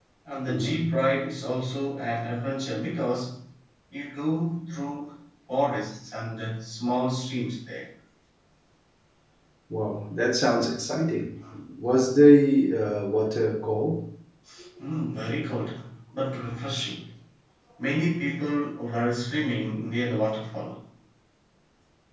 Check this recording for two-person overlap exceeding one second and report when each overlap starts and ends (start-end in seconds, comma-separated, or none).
none